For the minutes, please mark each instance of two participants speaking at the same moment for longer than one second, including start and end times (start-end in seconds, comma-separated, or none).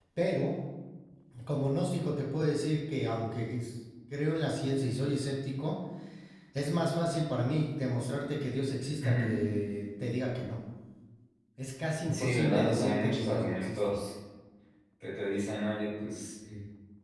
12.1-14.0